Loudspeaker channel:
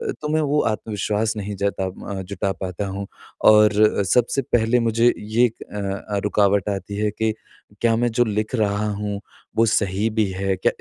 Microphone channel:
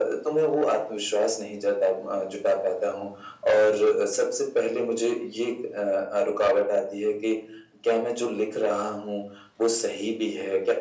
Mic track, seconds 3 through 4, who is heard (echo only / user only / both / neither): echo only